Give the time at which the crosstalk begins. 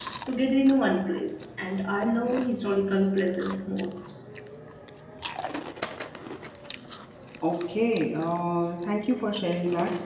none

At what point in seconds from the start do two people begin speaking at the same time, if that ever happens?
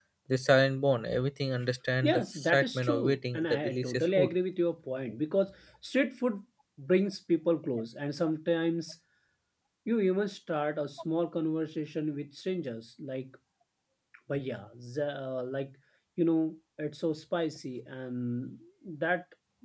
2 s

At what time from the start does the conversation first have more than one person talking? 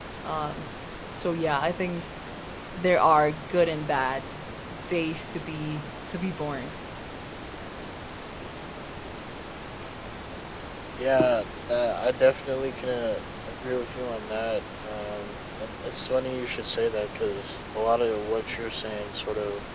none

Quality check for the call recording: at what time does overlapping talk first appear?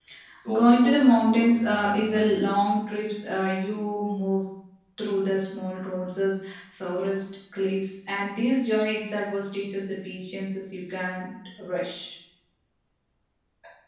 1 s

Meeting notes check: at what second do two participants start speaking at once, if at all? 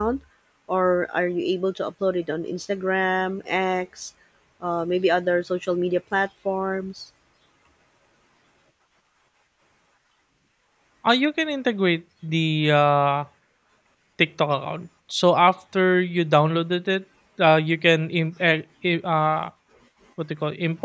none

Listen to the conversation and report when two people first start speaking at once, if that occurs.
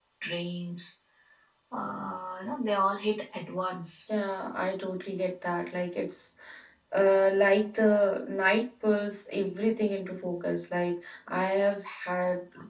none

